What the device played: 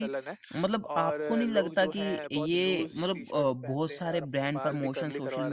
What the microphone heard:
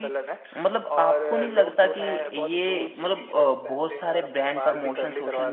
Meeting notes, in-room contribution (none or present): none